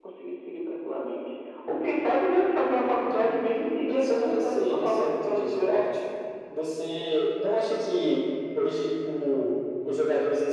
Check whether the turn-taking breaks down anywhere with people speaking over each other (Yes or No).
Yes